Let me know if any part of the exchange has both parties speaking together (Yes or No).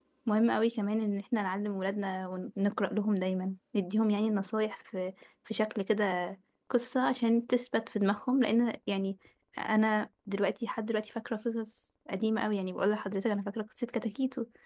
No